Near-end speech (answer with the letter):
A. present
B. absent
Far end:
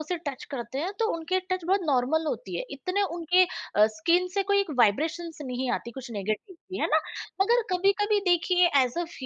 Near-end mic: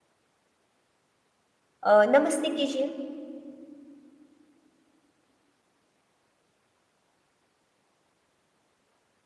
A